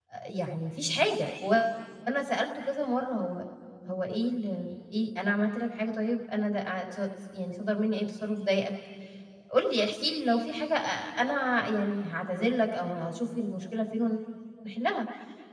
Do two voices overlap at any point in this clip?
No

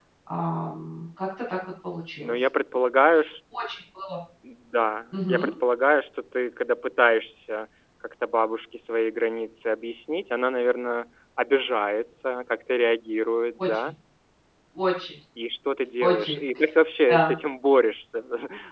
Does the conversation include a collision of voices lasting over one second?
No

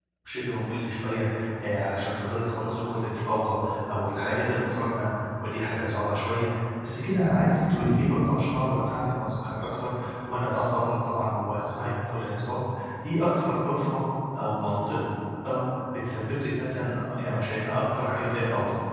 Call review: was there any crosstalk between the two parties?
No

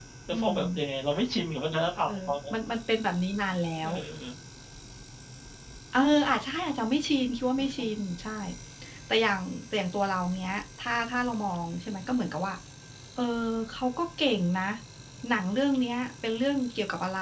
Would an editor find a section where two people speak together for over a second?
No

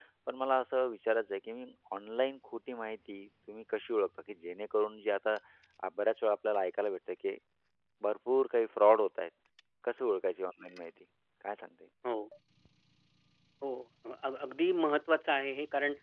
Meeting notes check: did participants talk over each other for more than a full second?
No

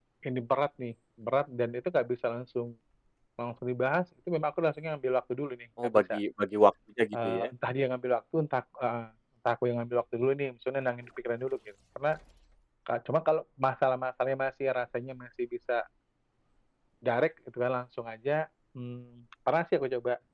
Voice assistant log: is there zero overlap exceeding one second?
Yes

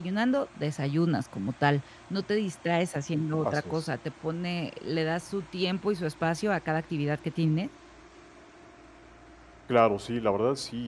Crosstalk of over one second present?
No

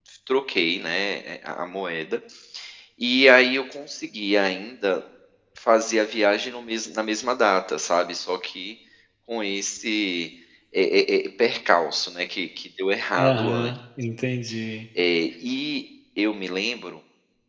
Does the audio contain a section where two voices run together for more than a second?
No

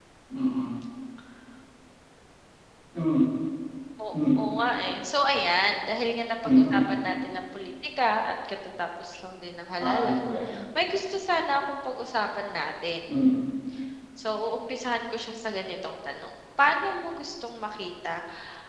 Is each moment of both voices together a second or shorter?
Yes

